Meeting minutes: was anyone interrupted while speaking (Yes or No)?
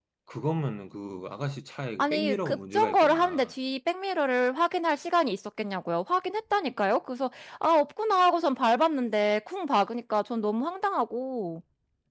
Yes